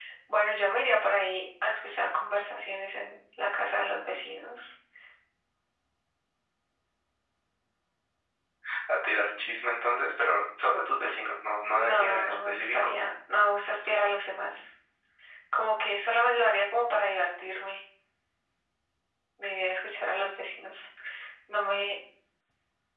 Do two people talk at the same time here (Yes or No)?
Yes